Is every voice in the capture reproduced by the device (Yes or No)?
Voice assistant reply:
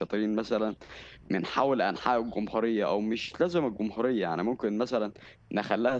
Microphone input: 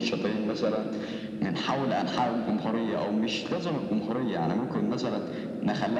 Yes